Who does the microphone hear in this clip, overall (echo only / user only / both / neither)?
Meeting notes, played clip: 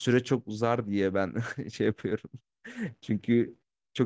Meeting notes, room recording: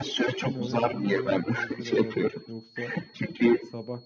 both